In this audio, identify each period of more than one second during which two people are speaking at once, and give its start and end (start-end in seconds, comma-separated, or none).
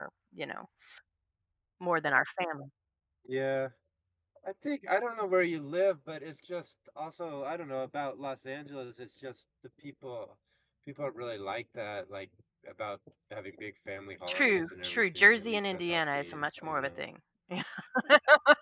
14.3-17.0